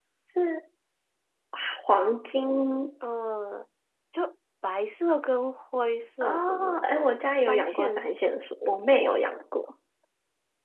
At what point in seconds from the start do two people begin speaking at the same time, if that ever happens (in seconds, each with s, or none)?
6.2 s